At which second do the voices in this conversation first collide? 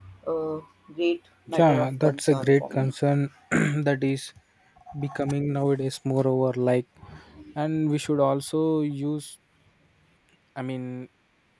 1.5 s

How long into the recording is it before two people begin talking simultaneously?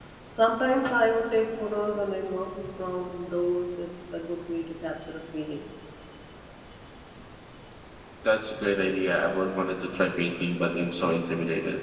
none

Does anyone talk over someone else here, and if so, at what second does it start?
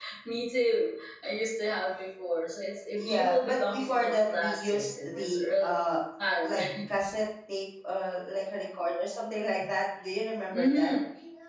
3.0 s

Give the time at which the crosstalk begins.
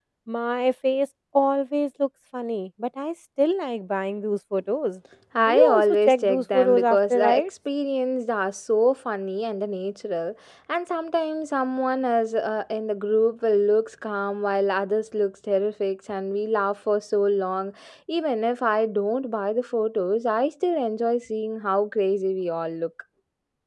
5.5 s

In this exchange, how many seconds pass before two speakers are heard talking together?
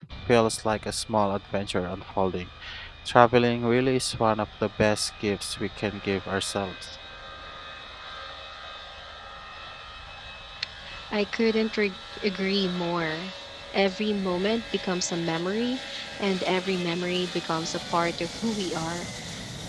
none

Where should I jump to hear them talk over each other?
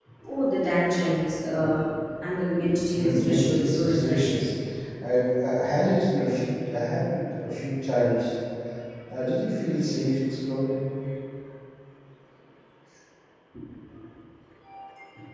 2.9 s

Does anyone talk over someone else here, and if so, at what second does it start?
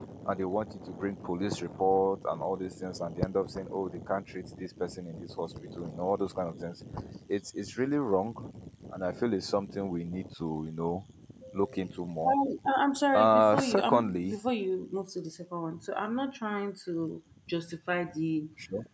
13.1 s

